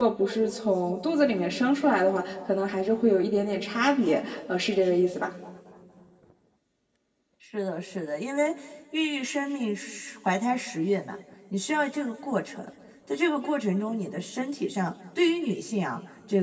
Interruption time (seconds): none

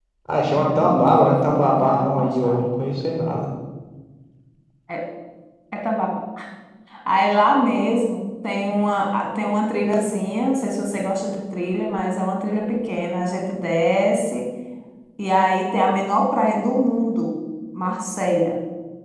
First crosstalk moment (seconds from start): 0.6 s

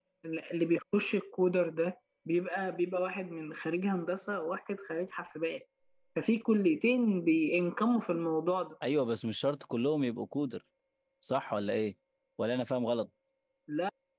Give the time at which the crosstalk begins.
none

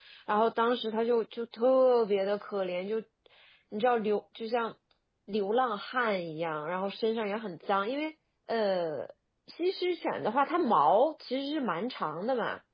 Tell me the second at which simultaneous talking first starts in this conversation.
none

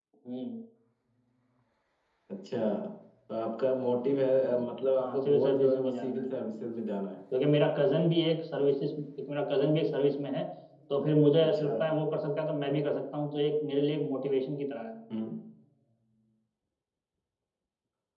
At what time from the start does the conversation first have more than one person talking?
5.0 s

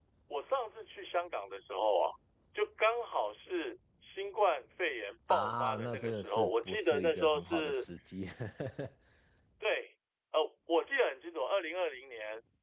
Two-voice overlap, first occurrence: 5.3 s

